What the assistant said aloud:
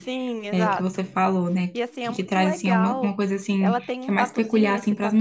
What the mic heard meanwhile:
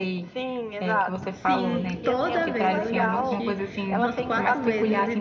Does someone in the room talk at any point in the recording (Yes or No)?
Yes